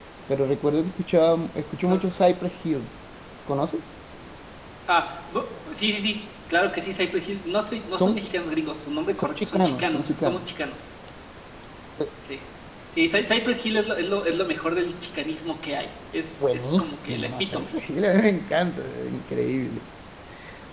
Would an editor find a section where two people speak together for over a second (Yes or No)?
Yes